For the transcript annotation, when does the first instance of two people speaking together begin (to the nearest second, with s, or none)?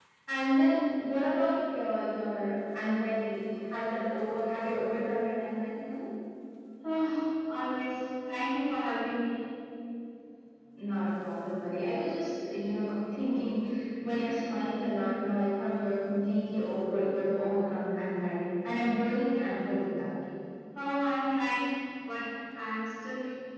none